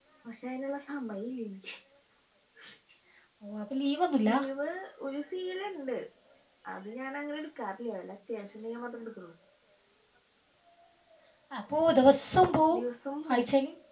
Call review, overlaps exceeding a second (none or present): none